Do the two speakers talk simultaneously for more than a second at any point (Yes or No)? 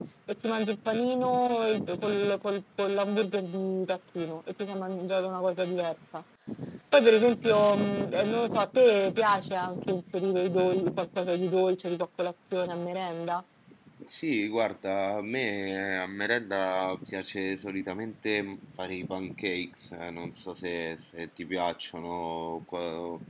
No